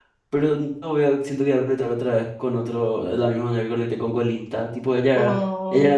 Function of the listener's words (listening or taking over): listening